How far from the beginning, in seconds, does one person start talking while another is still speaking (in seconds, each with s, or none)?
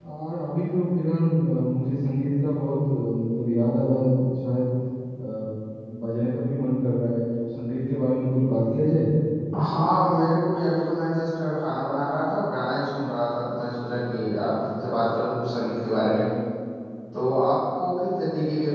none